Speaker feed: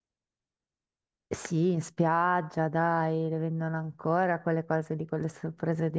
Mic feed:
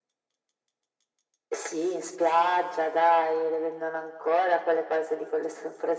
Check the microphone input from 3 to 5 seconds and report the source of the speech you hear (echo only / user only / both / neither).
echo only